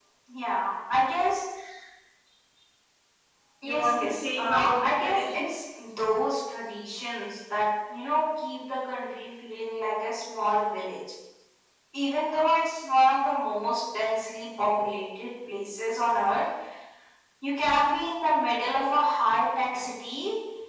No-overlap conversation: No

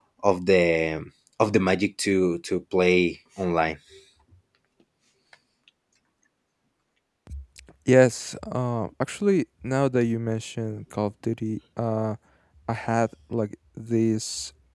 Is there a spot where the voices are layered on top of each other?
No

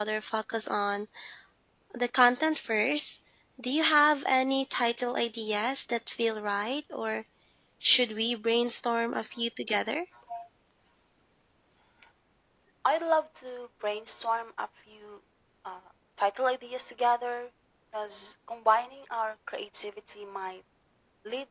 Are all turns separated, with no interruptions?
Yes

